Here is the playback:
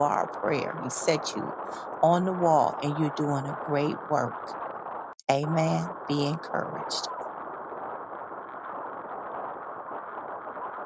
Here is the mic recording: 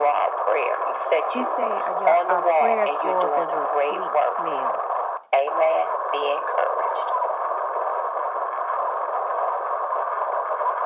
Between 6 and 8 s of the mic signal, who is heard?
echo only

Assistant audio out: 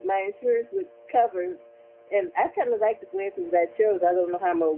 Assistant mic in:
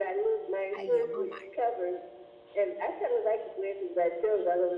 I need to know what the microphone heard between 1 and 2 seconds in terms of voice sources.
both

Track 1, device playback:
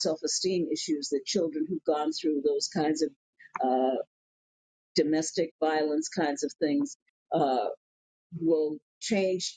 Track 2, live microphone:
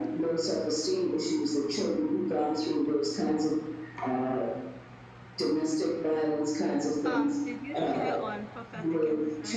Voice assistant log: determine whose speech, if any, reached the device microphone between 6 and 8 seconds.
both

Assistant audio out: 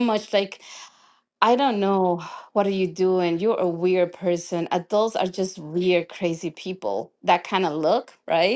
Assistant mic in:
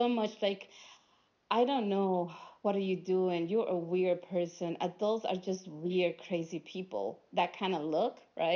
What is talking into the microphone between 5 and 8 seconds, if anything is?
echo only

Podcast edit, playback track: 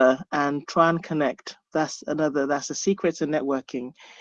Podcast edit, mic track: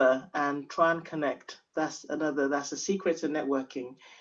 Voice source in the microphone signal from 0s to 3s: echo only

